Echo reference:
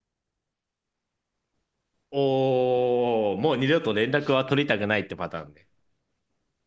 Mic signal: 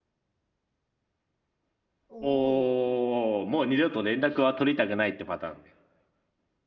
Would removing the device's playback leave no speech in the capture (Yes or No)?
No